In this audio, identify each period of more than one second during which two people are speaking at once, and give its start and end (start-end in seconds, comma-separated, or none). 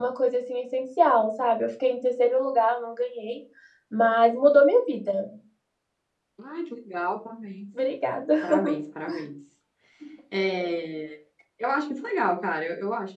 none